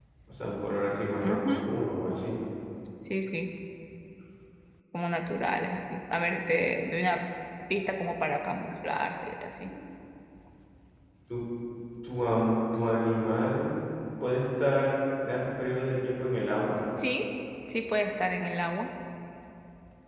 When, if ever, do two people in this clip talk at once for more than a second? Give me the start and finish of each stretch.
none

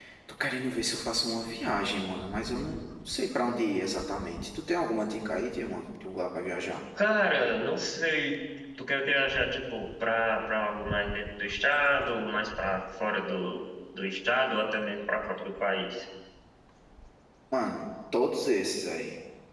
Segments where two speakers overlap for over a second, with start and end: none

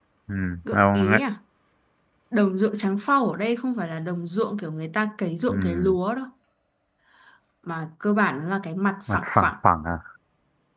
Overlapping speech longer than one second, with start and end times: none

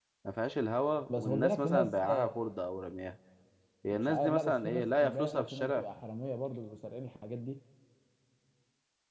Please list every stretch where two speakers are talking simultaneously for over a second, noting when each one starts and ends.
1.1-2.3, 3.9-5.8

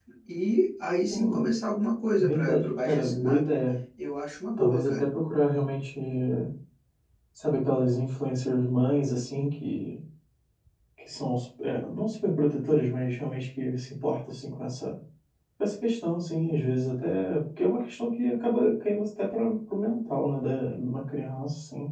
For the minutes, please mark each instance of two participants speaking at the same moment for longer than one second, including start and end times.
2.2-3.5

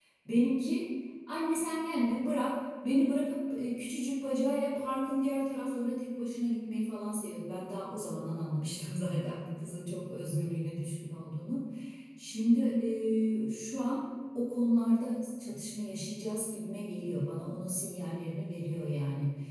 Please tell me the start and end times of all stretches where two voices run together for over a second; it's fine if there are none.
none

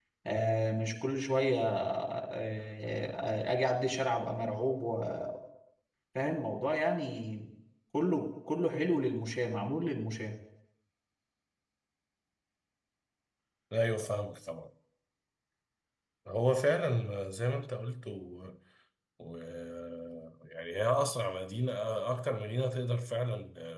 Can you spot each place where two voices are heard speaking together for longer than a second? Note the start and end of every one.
none

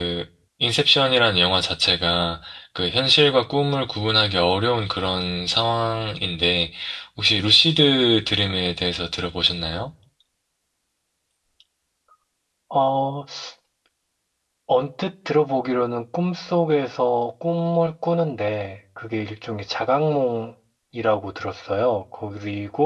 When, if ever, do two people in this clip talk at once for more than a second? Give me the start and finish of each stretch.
none

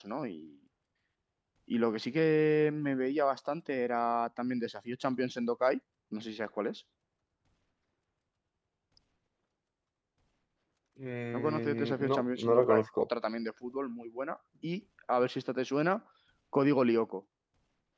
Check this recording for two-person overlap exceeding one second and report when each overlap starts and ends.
11.3-13.1

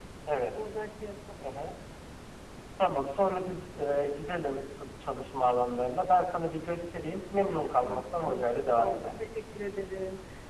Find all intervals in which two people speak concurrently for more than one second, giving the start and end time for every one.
7.8-9.2

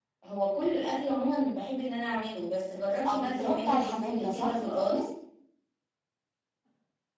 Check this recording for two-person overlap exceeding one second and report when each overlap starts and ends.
3.1-4.6

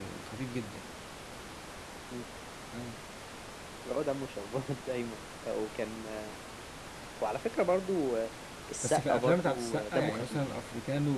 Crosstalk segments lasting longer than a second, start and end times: 8.8-10.4

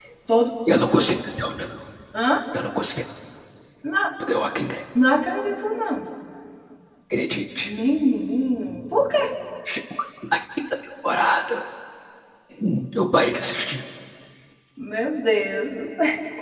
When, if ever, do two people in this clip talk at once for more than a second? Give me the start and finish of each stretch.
none

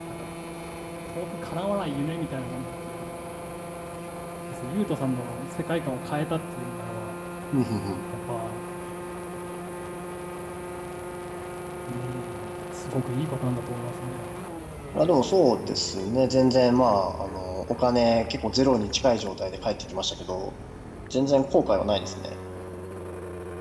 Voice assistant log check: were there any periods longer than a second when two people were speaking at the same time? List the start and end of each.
none

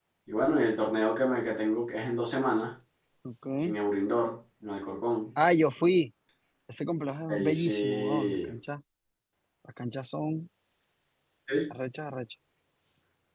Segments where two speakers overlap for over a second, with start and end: 7.3-8.5

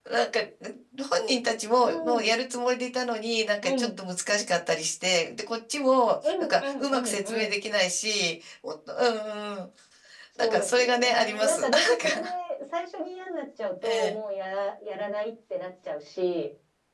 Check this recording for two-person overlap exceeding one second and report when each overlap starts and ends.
6.2-7.5, 10.4-12.1

